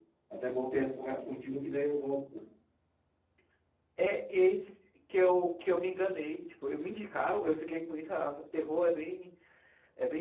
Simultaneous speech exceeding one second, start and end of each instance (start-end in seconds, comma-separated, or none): none